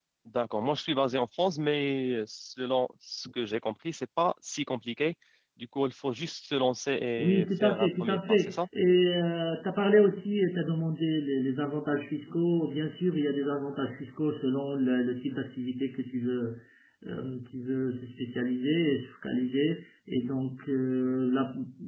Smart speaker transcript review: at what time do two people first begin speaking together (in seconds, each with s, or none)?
7.2 s